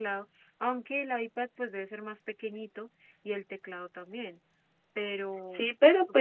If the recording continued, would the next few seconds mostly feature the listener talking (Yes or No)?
Yes